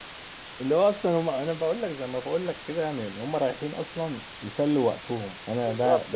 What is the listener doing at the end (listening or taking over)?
taking over